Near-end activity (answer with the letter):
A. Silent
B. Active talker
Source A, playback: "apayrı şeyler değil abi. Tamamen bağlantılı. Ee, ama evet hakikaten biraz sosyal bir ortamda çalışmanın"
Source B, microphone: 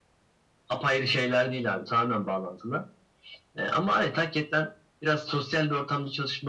A